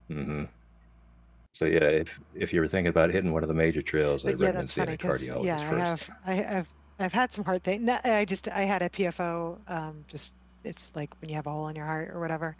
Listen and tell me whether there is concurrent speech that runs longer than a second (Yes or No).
Yes